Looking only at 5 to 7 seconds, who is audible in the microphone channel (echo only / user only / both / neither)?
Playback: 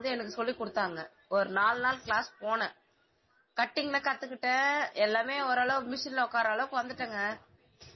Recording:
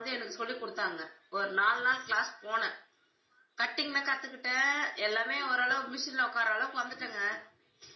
echo only